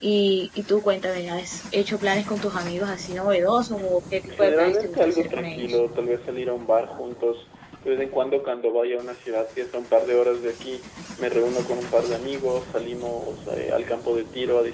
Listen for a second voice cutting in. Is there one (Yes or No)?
Yes